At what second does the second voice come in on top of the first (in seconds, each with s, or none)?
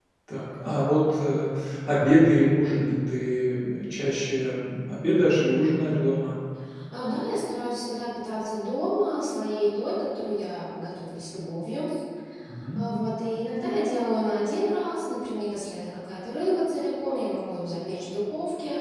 none